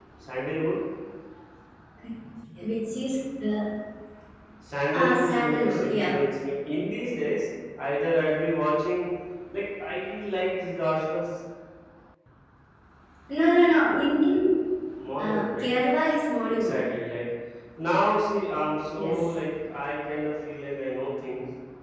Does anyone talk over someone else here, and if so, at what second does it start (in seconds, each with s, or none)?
4.9 s